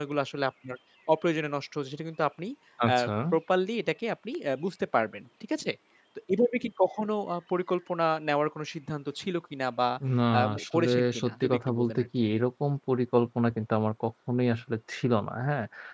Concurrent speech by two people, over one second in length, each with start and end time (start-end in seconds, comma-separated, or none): 10.6-12.1